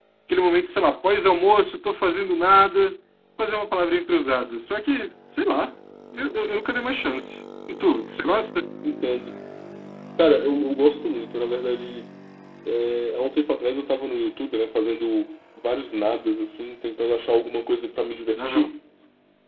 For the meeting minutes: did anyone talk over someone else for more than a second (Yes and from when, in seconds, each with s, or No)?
No